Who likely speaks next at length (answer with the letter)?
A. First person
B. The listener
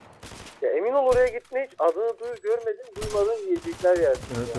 B